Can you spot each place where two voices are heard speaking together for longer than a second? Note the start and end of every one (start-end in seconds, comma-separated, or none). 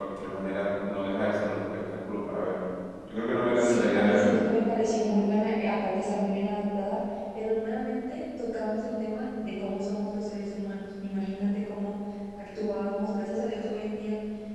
3.1-4.4